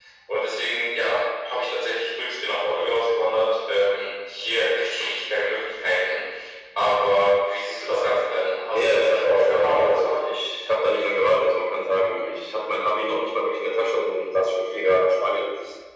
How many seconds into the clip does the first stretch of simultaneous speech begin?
9 s

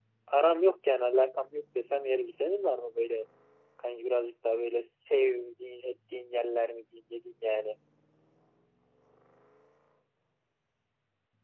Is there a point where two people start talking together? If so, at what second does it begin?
none

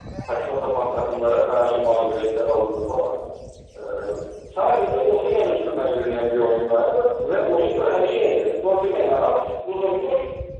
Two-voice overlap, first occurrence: none

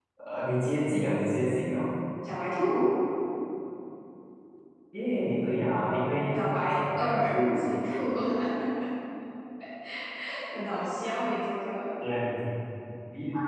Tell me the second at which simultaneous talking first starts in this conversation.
6 s

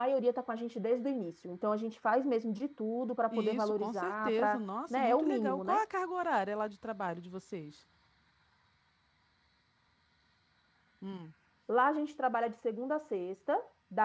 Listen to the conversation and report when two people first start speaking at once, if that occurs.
3 s

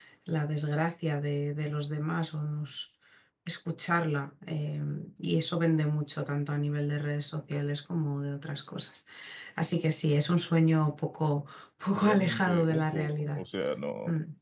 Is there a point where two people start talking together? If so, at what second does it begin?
12 s

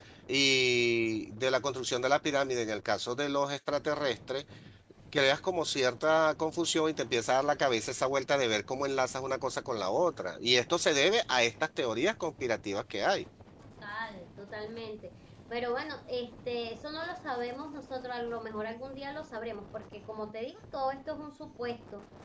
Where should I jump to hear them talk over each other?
none

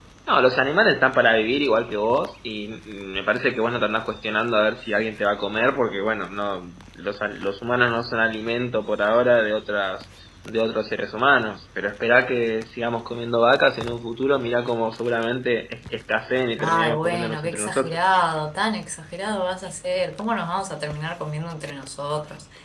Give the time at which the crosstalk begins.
17 s

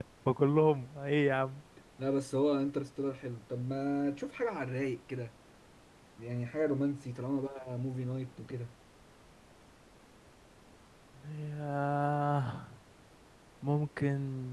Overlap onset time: none

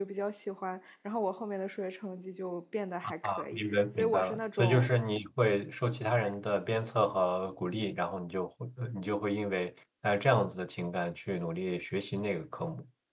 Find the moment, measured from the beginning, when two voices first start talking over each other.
3 s

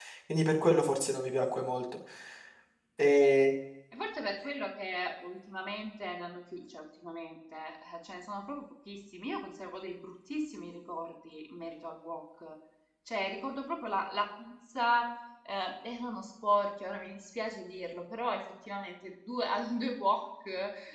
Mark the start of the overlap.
none

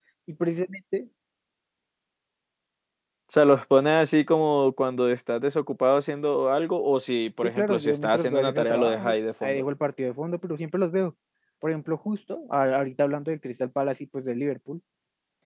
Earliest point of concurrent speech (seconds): 7 s

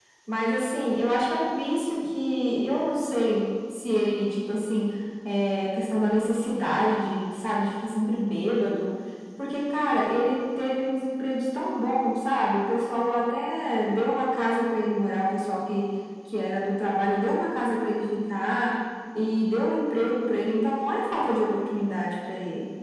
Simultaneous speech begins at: none

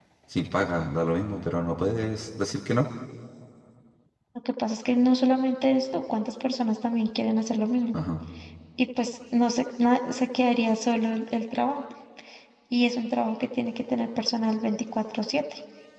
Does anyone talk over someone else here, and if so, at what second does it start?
none

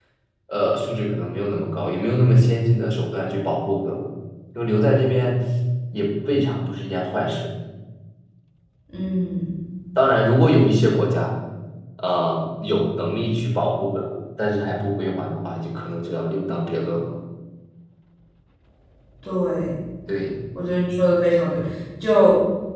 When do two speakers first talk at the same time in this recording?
none

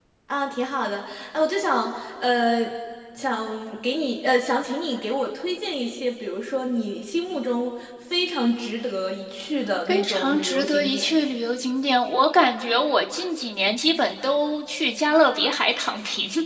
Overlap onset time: 10 s

